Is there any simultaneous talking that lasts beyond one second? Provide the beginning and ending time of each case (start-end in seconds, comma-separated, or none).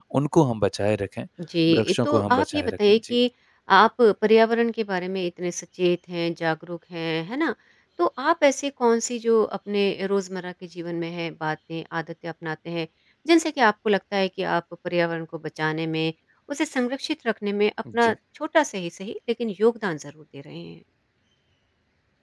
1.7-3.2